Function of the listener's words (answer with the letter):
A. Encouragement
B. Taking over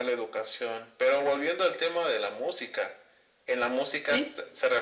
A